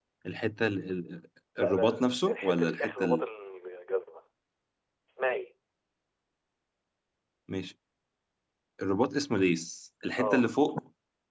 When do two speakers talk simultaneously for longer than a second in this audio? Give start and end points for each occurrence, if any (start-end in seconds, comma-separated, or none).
1.6-3.2